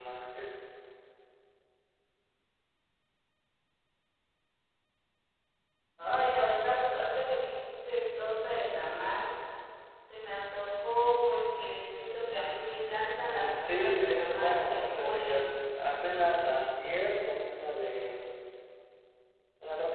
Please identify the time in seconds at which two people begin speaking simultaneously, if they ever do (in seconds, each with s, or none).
13.2 s